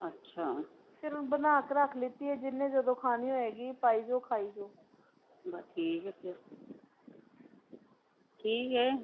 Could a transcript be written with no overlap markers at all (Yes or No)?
Yes